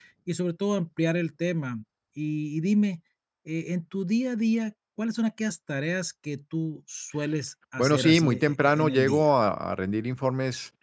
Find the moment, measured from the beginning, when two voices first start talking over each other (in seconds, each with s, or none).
7.8 s